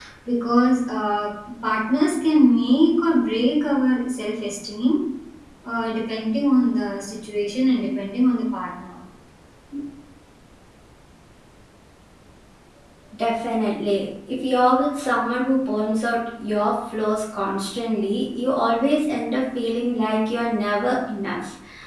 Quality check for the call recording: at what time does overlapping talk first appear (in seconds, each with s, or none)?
none